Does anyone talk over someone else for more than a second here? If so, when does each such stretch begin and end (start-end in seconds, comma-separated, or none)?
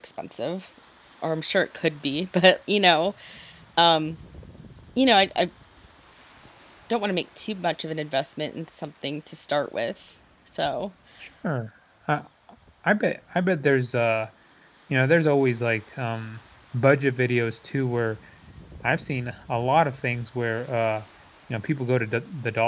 none